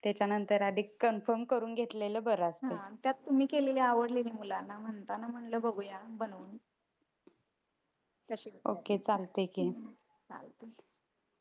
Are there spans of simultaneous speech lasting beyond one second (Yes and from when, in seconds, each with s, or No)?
No